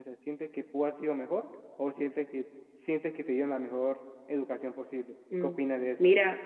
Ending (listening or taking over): taking over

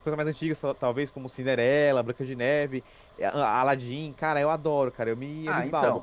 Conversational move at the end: taking over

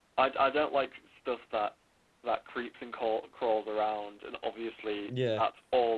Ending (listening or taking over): listening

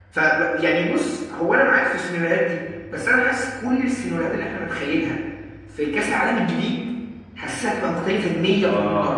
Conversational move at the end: taking over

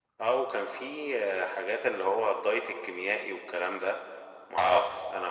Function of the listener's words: listening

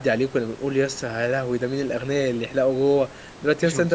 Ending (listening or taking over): listening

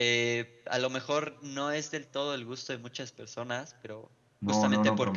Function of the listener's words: taking over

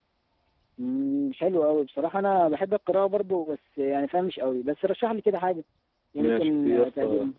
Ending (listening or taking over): taking over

